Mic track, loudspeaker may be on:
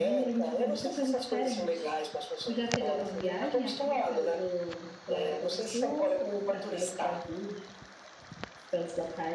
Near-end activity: present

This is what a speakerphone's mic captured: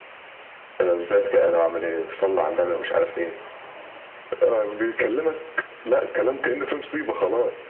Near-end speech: none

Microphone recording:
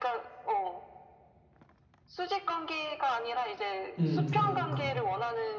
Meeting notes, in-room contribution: present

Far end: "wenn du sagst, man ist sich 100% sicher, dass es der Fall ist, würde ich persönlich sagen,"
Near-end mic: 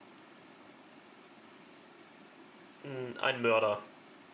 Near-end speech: present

